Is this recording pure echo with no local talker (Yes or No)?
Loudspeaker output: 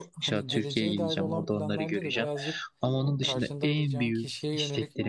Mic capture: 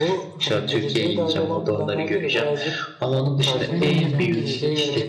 No